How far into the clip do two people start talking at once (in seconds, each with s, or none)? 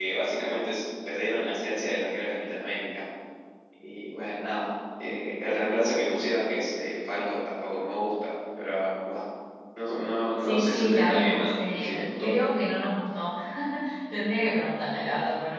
10.4 s